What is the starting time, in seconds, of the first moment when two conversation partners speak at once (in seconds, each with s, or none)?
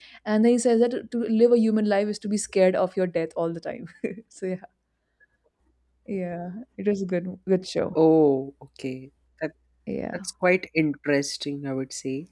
none